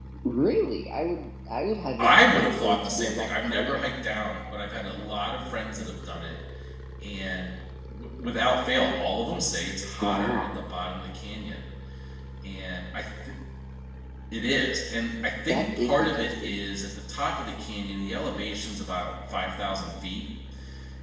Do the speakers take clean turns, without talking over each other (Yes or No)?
No